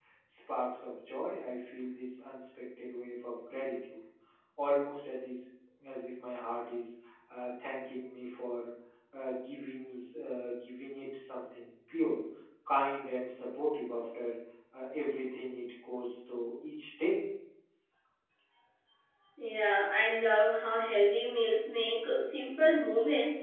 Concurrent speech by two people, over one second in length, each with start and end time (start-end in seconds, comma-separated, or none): none